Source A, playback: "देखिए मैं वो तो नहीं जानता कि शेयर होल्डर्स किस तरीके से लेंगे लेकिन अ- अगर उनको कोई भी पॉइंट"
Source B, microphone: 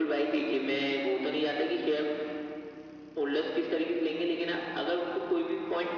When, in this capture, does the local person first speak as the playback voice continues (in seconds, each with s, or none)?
none